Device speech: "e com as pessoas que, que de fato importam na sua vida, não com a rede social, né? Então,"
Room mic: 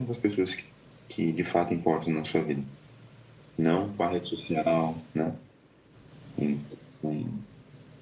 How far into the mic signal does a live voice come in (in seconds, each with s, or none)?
none